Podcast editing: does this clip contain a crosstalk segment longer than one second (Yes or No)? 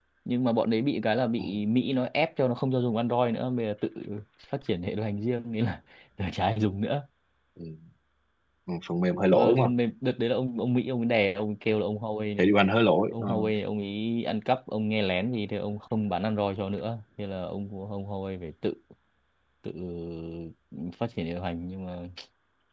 No